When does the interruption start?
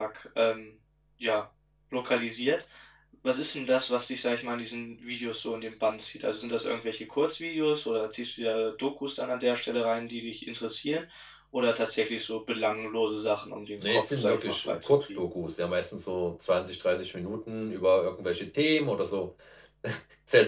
13.8 s

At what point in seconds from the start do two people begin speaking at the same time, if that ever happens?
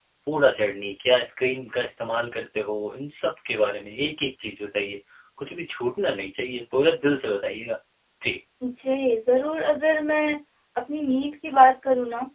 none

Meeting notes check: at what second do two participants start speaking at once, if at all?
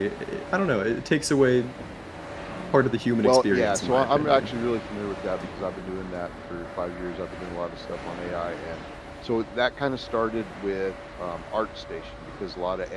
3.2 s

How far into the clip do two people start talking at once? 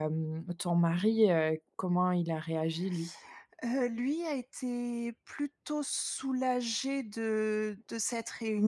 none

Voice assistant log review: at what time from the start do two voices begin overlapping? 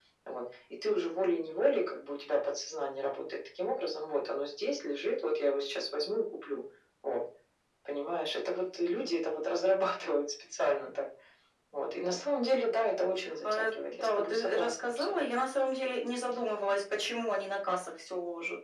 13.4 s

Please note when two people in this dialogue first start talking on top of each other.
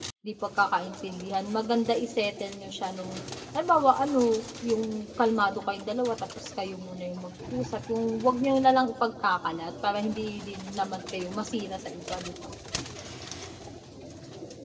none

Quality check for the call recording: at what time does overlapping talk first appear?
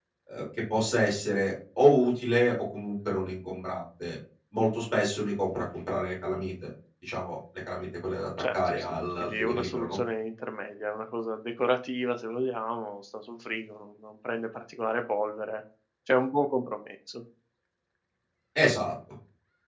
8.4 s

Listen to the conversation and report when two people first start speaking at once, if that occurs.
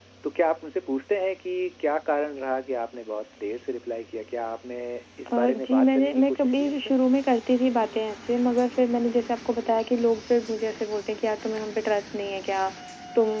5.3 s

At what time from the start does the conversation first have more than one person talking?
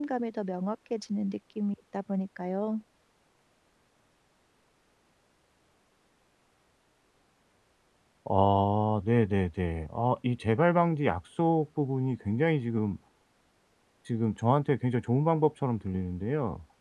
none

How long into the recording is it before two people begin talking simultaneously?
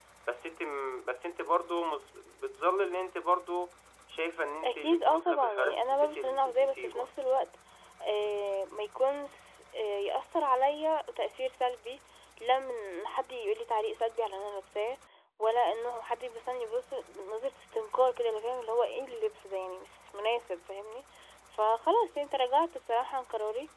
4.6 s

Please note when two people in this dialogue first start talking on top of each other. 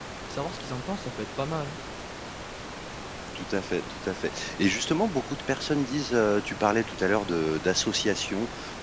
none

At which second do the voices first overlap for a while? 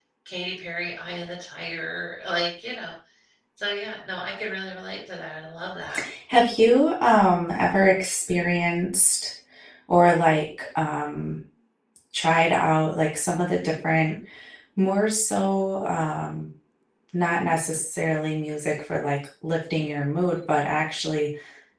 none

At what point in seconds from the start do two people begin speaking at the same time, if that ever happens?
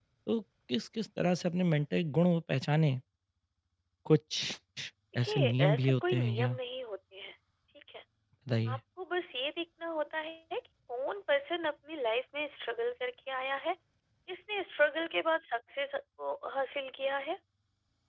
5.2 s

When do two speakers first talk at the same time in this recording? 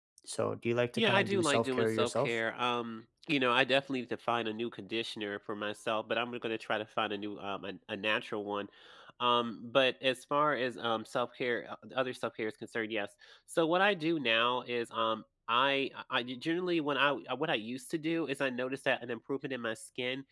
1.0 s

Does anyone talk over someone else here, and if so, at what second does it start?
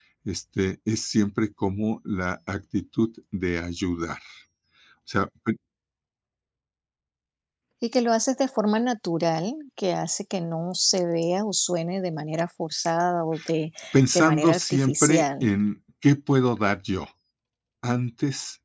14.1 s

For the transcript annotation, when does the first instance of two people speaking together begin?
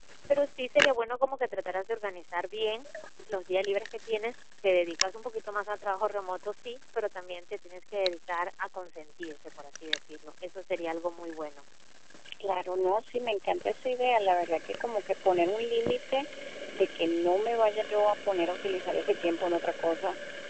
none

